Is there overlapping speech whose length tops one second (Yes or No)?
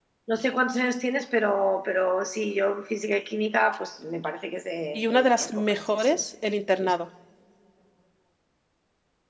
Yes